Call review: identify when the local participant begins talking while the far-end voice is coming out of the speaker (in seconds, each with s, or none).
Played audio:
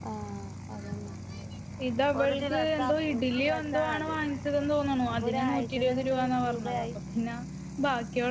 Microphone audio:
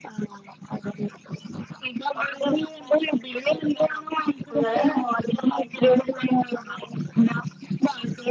4.5 s